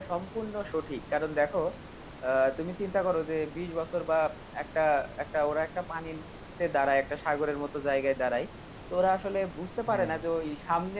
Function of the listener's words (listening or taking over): listening